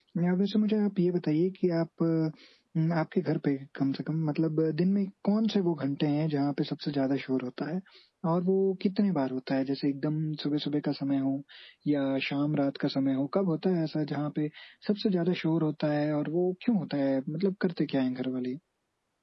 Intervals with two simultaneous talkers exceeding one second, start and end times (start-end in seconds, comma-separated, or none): none